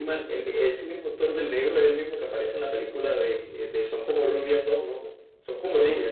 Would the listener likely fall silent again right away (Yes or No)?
No